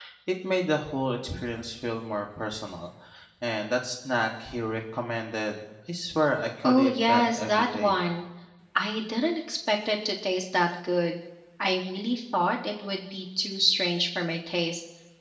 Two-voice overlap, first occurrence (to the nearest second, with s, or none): 7 s